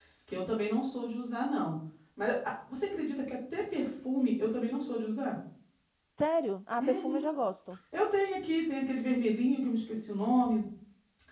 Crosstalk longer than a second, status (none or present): none